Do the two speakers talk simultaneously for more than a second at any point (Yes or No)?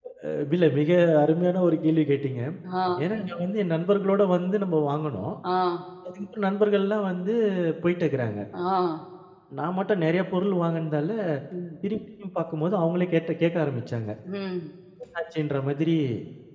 No